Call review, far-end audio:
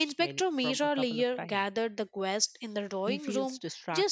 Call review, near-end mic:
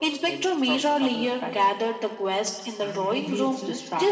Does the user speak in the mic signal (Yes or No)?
Yes